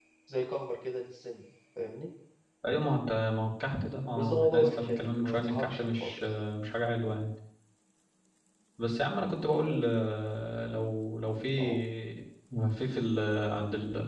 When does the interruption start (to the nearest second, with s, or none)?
4 s